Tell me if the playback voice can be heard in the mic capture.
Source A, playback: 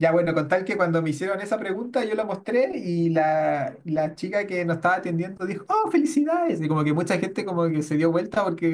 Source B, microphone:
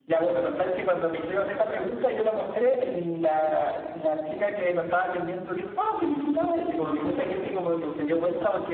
Yes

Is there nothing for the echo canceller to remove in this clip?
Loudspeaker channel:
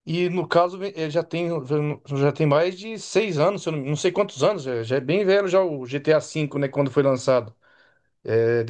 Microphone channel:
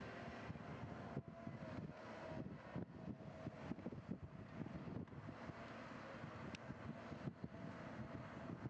Yes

